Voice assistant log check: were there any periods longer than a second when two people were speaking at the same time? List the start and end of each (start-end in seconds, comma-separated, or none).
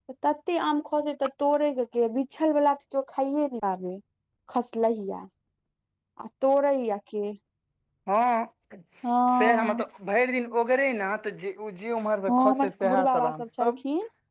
12.3-13.7